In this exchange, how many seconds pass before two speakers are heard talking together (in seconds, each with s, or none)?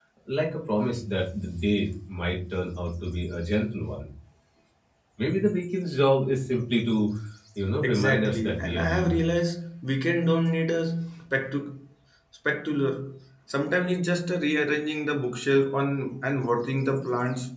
7.8 s